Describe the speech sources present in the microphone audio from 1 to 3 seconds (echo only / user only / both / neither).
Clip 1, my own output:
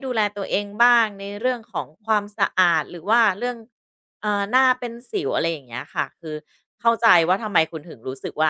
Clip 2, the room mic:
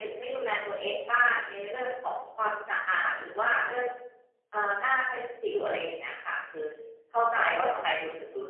echo only